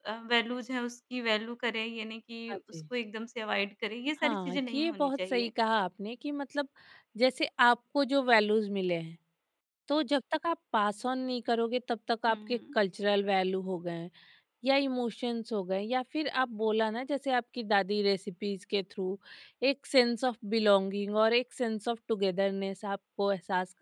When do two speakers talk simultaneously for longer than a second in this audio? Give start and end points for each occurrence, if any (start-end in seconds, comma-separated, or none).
4.2-5.5